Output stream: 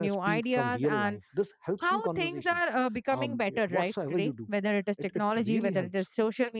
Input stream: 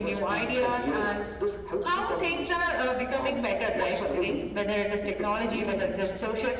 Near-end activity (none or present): none